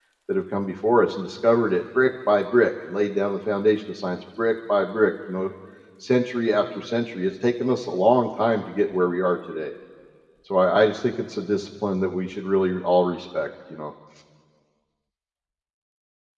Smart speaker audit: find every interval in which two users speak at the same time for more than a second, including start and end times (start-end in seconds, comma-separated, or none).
none